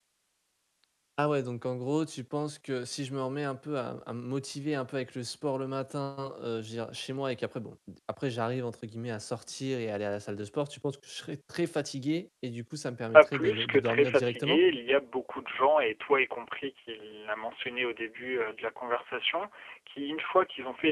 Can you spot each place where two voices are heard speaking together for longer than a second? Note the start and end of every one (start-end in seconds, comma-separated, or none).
13.1-14.6